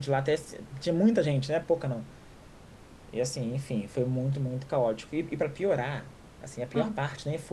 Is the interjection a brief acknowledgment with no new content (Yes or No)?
Yes